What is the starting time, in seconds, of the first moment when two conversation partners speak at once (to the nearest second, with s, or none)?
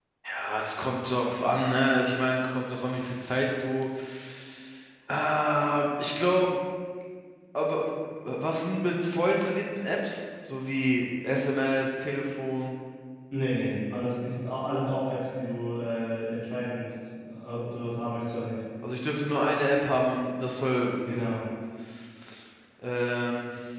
none